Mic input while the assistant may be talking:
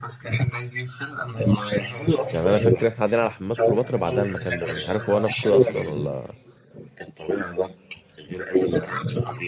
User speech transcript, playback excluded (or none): يعني انا فاكر احنا قاعدين على حمامات كليوباترا بعدها المكان ده مش عارف هو نفسه اصلا ولا